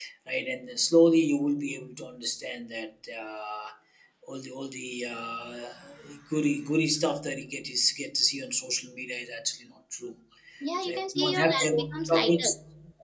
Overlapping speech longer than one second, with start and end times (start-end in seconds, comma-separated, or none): 10.8-12.5